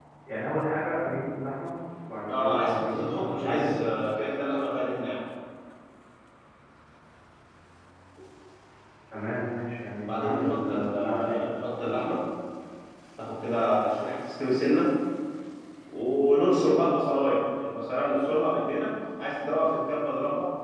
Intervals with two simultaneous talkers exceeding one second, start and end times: 2.3-3.7, 10.0-11.4

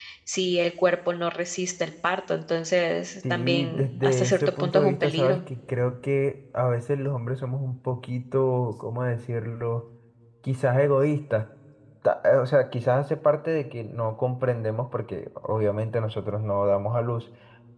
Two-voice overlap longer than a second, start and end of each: 3.3-5.4

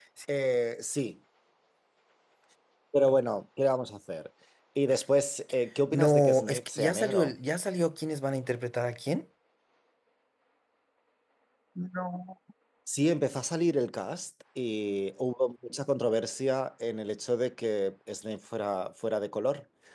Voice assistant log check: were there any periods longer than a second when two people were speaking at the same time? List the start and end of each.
5.9-7.3

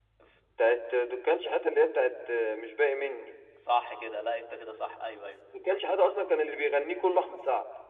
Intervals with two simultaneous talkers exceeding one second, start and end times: none

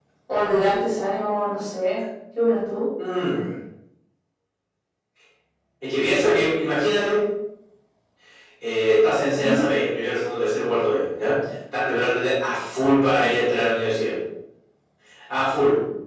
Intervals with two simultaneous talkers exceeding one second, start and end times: none

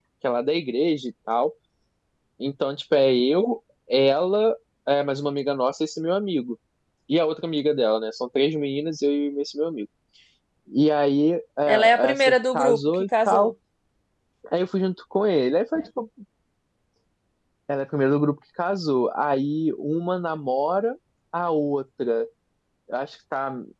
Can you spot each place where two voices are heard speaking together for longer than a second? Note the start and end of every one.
11.7-13.5

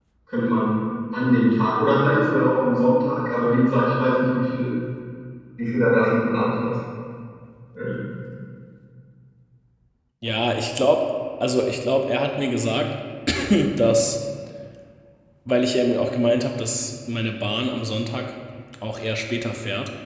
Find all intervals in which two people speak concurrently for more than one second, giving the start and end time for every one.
none

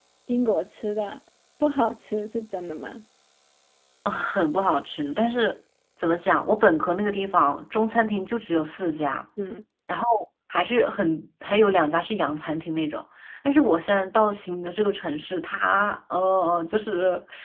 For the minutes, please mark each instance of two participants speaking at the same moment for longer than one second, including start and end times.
none

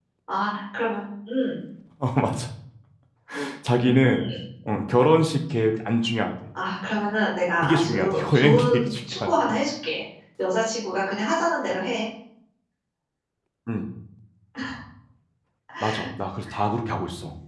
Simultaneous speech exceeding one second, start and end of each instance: 7.6-9.3

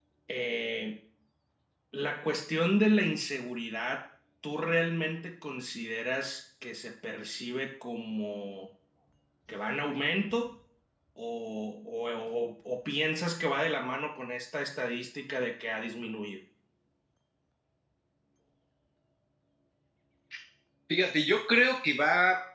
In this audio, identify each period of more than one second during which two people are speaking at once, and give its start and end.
none

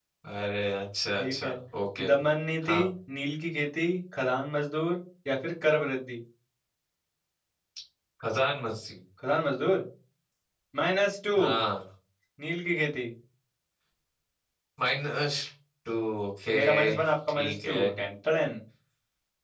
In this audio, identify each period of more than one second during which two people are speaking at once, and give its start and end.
16.6-17.8

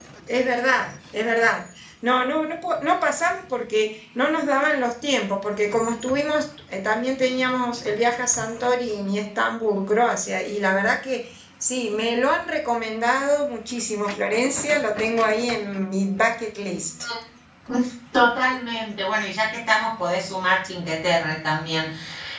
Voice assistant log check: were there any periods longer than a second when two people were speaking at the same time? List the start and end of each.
none

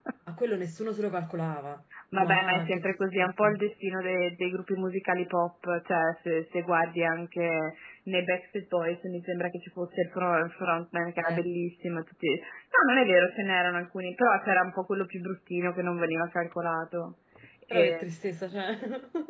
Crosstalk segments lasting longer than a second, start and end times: 2.2-3.6

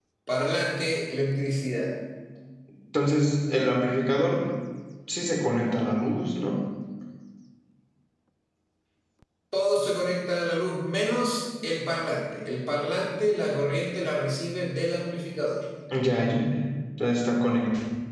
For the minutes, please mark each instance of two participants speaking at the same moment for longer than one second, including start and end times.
none

